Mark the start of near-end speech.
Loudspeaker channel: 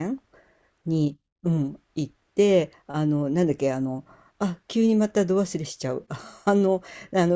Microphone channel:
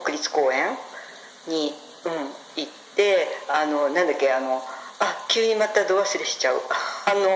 none

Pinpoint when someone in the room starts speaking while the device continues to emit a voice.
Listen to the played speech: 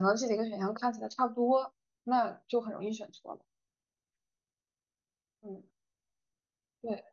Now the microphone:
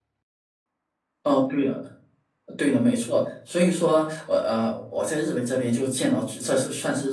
1.2 s

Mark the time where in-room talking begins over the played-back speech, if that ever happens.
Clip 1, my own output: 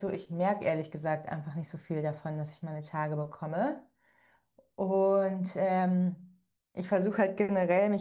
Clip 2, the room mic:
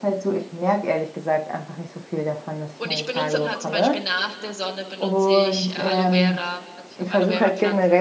2.8 s

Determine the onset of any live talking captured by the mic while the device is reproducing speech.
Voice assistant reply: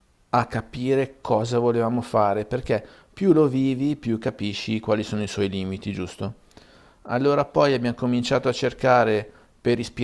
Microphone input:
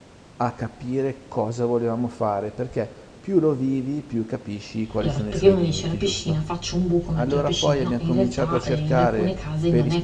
5.0 s

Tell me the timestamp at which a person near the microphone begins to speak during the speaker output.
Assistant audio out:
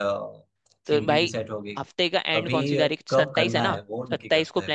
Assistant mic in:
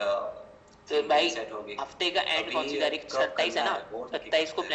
none

